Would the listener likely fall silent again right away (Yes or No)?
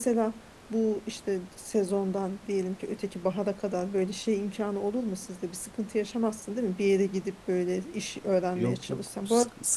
No